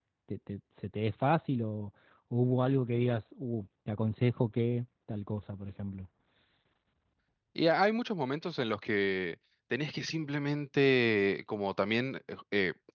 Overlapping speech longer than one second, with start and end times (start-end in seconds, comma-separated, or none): none